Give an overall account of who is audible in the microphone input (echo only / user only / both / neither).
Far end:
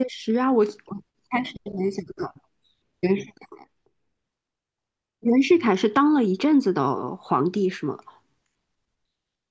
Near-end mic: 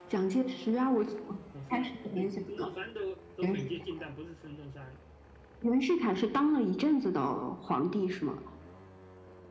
both